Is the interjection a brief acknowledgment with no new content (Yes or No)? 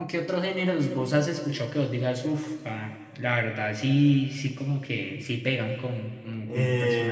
No